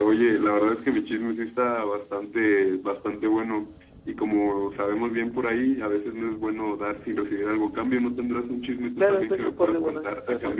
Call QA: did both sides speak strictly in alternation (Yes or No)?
No